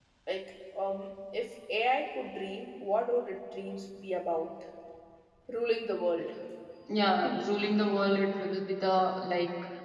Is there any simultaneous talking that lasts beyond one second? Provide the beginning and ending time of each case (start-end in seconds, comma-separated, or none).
none